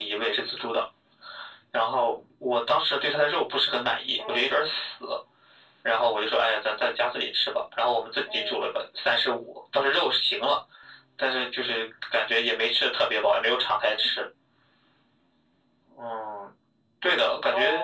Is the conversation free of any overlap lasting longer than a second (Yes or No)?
Yes